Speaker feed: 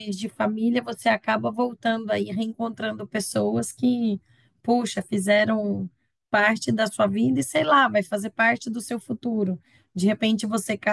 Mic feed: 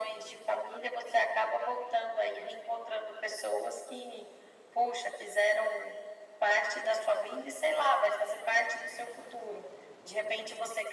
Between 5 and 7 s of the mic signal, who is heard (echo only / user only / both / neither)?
echo only